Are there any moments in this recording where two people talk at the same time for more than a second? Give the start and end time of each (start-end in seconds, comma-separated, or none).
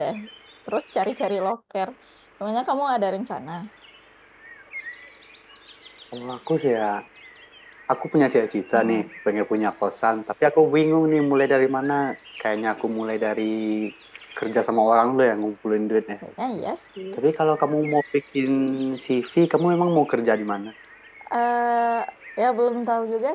none